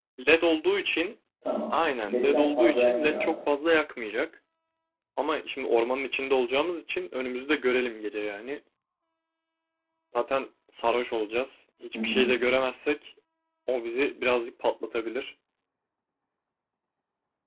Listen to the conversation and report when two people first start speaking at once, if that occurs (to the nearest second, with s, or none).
2 s